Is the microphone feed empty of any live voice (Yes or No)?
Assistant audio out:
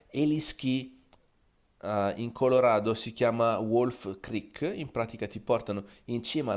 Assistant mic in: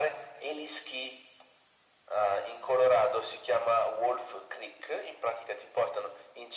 Yes